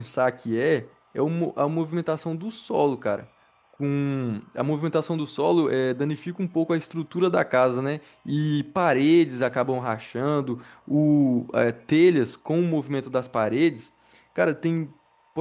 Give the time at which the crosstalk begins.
none

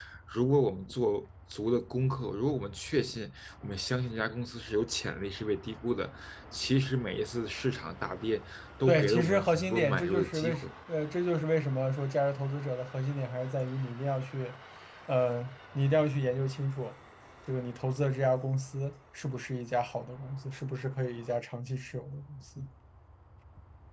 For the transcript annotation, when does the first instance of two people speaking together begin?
8.8 s

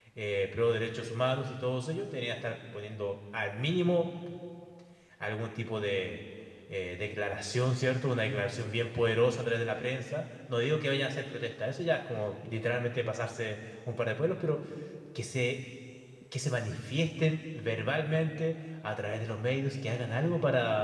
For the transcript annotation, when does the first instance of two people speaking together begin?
none

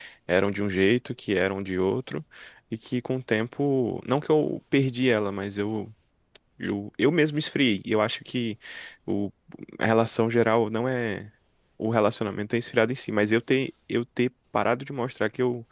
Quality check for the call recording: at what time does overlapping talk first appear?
none

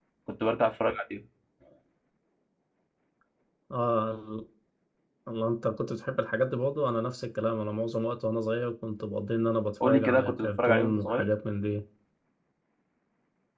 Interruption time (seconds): 9.8 s

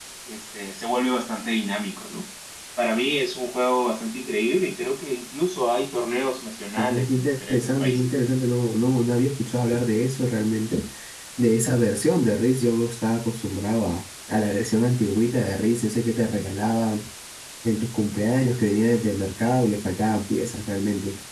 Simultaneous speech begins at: 6.8 s

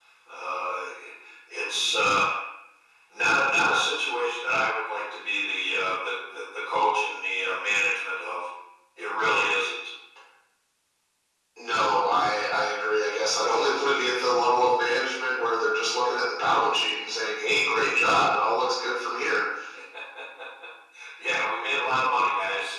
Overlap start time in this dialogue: none

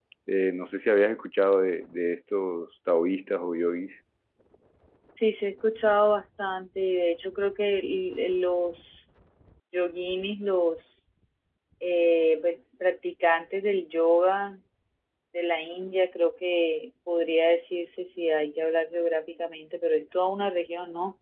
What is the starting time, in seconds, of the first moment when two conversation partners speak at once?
none

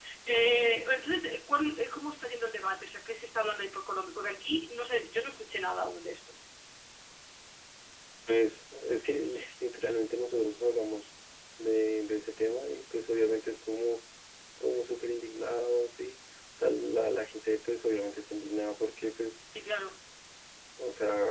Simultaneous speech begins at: none

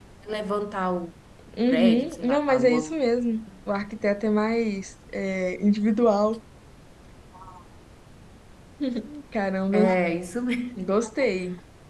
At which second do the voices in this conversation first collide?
1.7 s

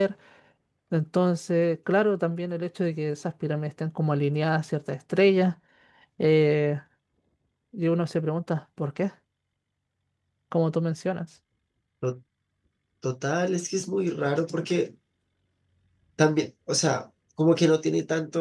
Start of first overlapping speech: none

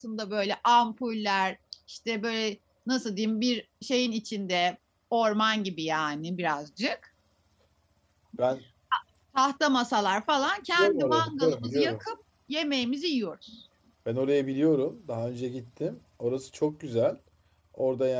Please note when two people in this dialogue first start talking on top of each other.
10.8 s

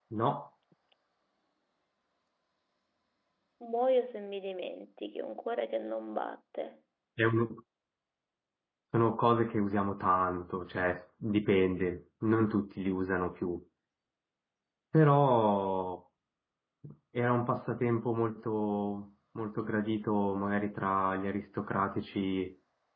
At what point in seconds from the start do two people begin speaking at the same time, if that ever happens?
none

